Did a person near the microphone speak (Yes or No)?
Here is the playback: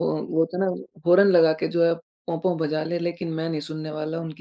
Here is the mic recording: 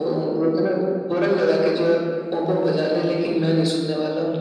No